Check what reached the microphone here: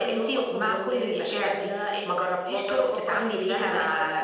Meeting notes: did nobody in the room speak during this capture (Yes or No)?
Yes